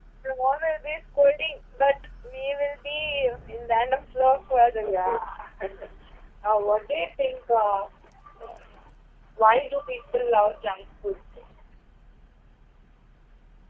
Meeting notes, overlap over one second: none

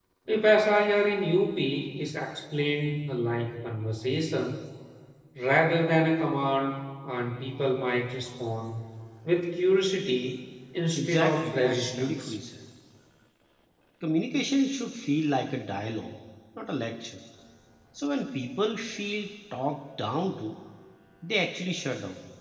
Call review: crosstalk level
present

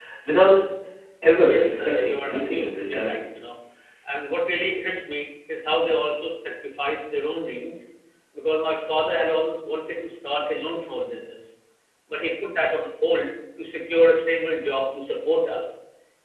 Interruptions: present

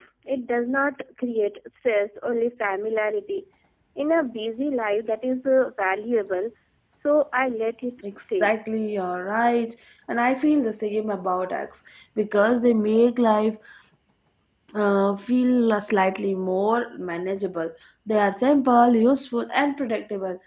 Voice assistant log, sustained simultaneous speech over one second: none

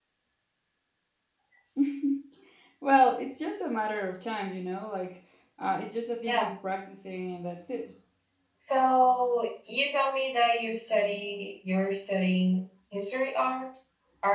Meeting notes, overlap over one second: none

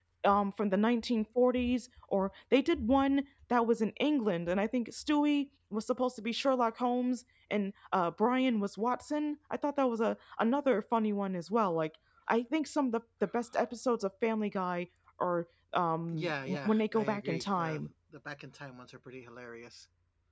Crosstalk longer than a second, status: present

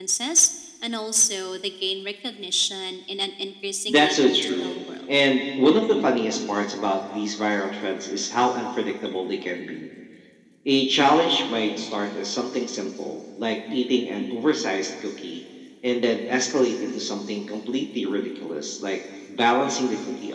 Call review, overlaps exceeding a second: present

